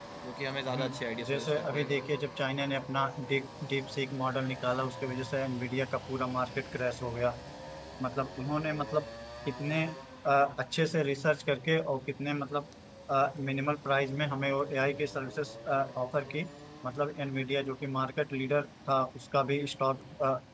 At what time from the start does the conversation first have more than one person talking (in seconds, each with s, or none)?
0.7 s